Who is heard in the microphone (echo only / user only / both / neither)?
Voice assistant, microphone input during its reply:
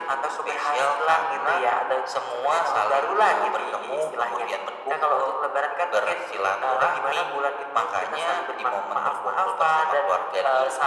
echo only